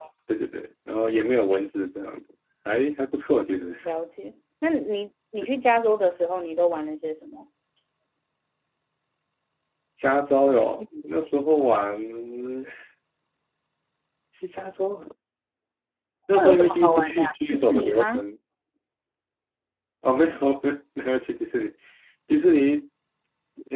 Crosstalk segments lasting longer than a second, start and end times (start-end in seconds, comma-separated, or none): 16.3-18.2